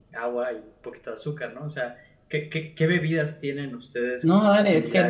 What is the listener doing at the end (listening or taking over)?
taking over